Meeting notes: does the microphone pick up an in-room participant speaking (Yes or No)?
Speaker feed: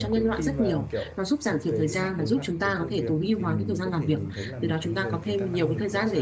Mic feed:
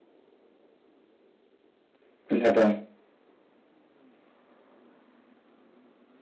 Yes